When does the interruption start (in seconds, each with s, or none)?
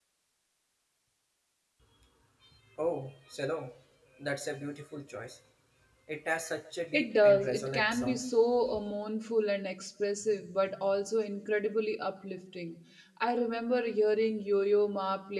6.9 s